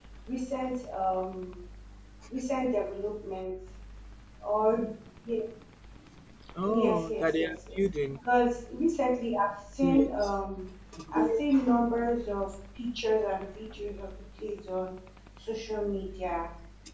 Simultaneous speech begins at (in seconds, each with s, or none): 6.7 s